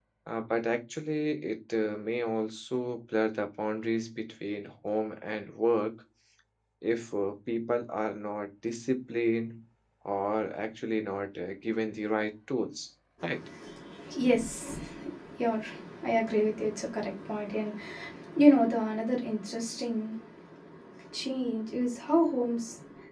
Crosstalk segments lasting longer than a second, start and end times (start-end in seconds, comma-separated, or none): none